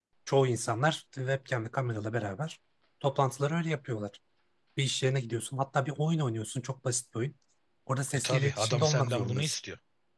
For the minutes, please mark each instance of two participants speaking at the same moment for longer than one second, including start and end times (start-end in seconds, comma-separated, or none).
8.1-9.6